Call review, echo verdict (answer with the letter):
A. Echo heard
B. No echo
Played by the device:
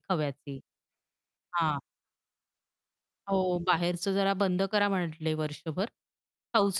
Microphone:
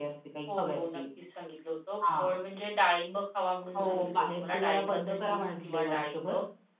A